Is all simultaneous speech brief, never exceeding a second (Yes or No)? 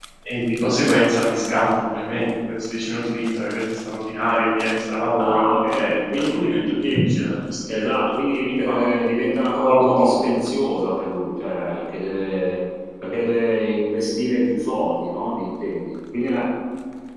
No